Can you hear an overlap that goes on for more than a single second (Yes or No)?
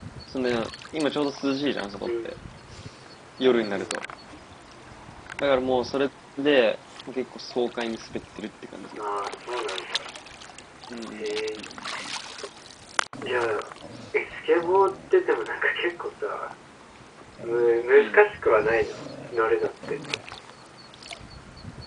No